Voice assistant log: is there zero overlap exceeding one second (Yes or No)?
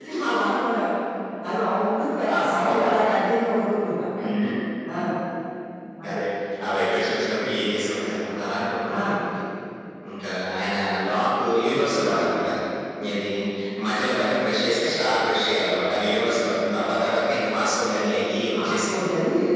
Yes